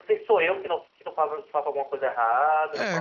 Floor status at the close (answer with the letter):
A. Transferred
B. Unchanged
A